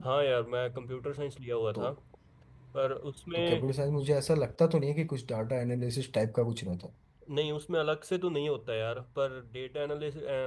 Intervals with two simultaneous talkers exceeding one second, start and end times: none

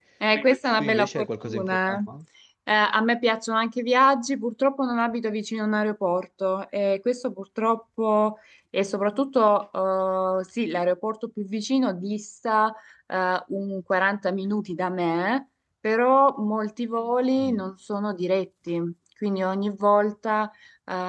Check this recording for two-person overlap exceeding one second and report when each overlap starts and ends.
0.8-2.0

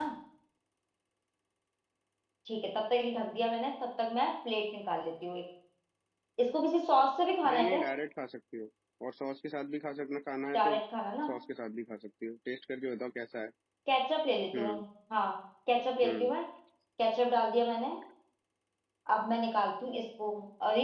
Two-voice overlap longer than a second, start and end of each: none

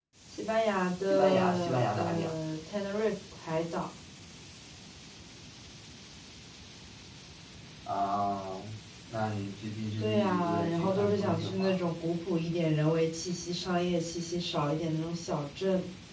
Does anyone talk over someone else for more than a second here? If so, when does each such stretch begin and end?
1.1-2.3, 10.0-11.8

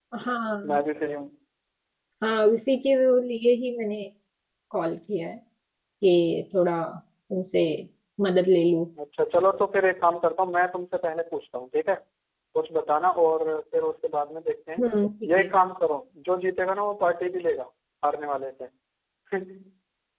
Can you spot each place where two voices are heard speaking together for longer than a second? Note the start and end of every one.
none

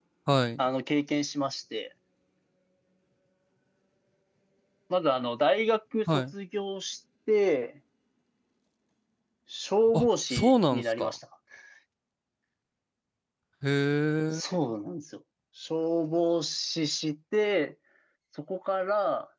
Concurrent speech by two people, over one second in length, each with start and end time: 9.9-11.1

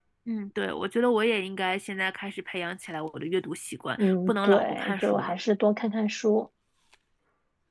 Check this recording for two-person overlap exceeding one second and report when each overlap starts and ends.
4.0-5.3

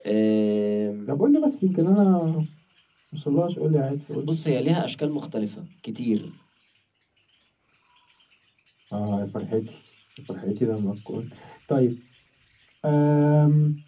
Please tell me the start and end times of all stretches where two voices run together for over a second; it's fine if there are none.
none

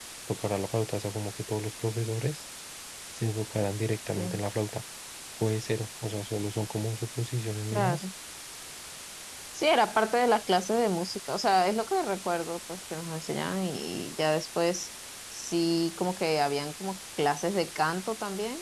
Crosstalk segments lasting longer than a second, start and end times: none

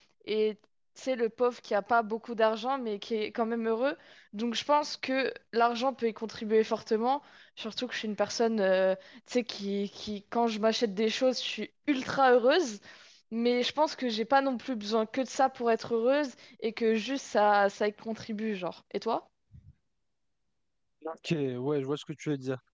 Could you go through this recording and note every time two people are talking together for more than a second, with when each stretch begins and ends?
none

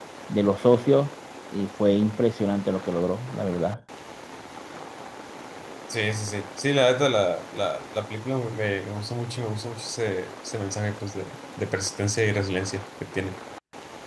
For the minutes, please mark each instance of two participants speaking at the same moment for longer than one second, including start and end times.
none

